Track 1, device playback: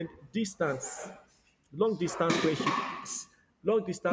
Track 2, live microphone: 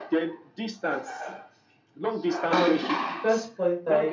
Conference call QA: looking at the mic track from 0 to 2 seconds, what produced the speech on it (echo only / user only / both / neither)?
echo only